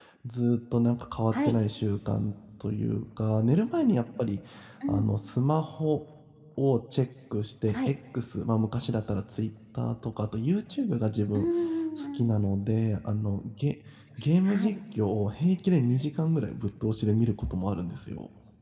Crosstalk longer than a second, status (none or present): none